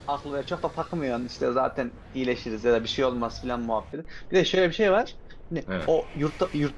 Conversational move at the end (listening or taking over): listening